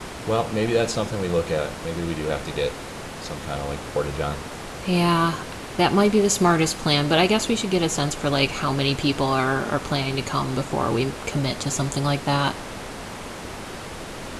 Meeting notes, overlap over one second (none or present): none